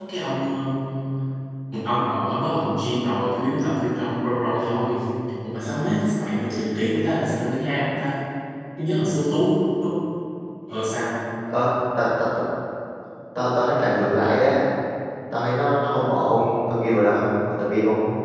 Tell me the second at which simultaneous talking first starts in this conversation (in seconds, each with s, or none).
none